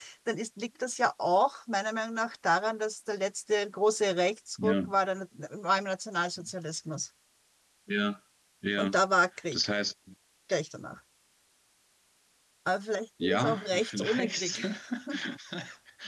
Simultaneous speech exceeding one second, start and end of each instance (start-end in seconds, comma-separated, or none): 13.2-14.6